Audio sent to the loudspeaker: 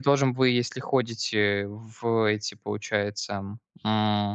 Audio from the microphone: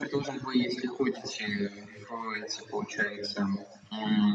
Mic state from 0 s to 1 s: echo only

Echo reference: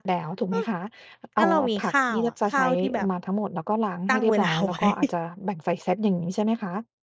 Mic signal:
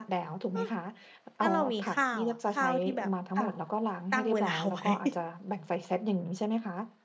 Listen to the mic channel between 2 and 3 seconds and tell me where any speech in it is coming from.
echo only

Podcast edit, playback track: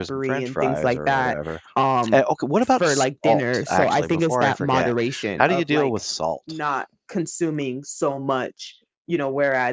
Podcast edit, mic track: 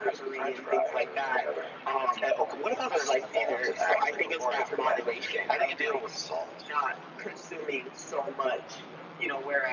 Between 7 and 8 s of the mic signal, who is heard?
echo only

